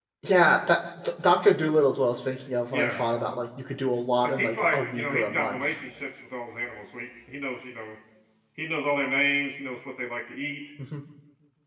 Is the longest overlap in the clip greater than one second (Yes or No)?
Yes